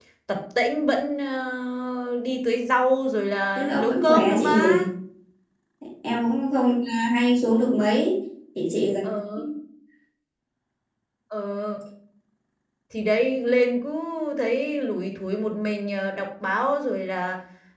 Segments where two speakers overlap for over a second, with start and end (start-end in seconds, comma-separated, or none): 3.6-4.8